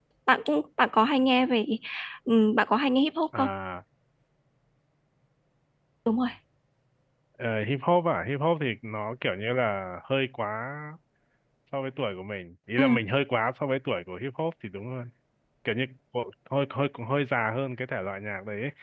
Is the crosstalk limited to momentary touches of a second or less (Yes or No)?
Yes